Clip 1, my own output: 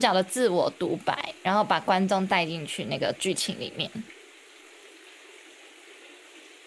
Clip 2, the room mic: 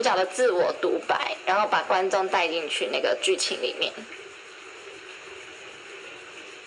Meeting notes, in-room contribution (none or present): none